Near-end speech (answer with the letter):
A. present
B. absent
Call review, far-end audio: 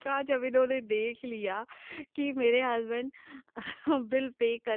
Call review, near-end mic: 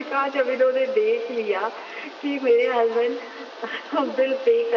B